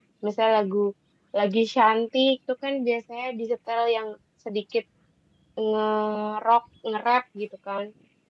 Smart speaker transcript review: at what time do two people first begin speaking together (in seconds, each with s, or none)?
none